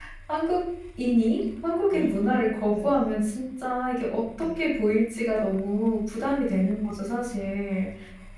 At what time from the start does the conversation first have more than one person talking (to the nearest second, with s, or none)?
2 s